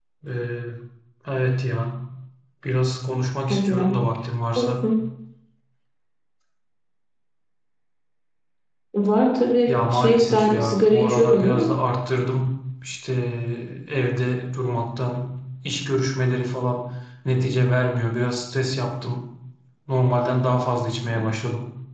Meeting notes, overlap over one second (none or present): present